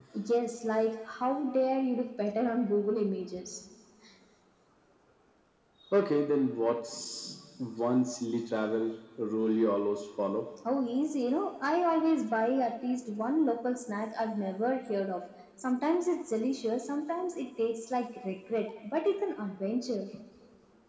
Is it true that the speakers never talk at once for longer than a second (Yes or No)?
Yes